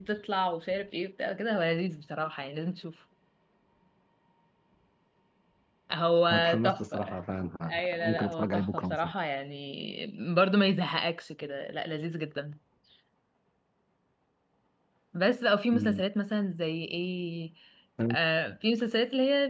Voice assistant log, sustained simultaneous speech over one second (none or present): present